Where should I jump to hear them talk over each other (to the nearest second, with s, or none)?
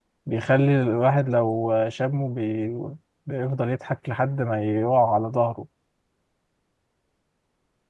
none